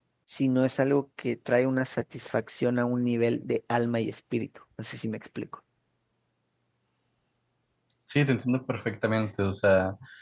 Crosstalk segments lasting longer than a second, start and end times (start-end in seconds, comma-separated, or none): none